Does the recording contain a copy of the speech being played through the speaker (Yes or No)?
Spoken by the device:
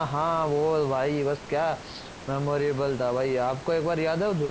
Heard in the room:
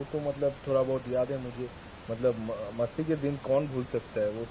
No